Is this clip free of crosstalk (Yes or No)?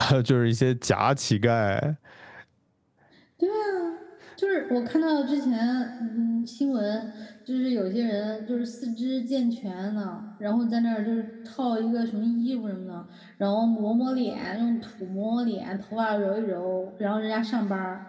Yes